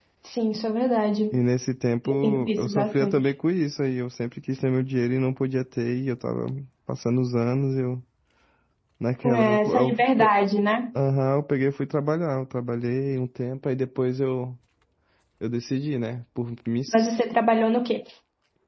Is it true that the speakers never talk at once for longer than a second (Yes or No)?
No